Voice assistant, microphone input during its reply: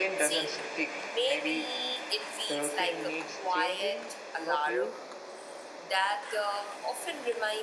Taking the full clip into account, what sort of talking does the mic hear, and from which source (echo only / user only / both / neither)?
both